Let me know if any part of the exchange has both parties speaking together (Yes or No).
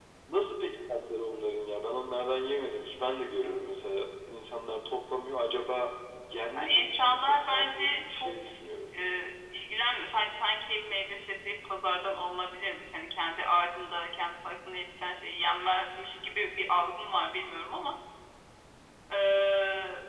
Yes